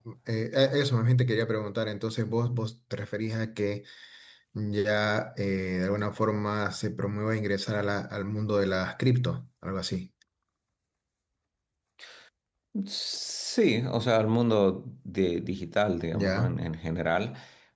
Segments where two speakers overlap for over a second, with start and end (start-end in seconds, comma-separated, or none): none